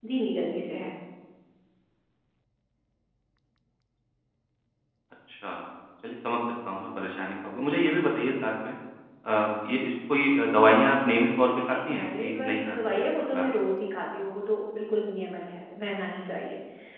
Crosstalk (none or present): present